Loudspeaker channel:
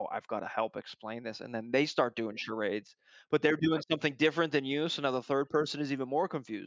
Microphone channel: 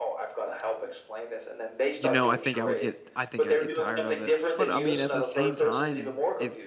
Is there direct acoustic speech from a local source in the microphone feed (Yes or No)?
Yes